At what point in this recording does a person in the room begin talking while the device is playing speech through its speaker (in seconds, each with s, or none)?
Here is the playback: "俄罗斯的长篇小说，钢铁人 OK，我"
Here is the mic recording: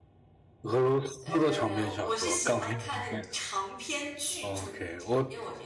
1.2 s